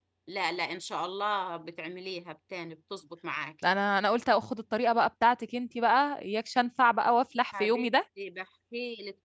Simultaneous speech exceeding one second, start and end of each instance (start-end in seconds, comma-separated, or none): none